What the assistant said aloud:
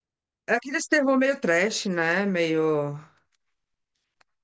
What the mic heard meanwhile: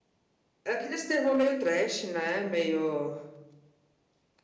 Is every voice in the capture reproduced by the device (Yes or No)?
Yes